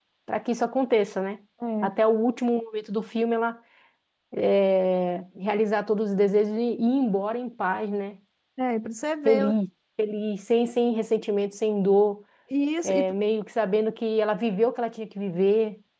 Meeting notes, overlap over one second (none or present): none